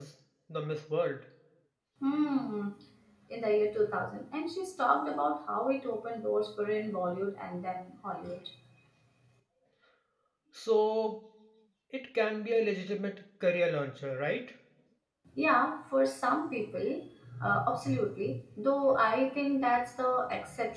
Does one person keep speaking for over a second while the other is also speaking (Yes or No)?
No